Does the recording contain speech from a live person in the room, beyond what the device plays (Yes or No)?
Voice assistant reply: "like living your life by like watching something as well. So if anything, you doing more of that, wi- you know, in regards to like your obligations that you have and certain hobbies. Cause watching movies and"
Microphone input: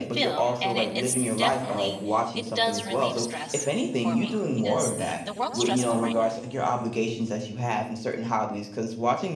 Yes